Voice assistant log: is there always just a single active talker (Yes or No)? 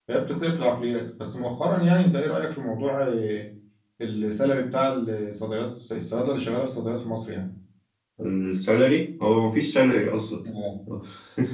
Yes